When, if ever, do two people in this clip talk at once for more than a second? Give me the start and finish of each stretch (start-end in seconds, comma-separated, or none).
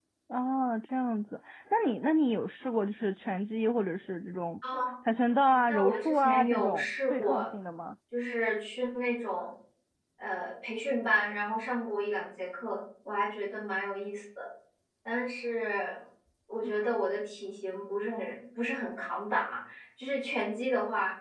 5.7-7.5